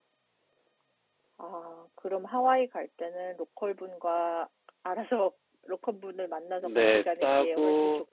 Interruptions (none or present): present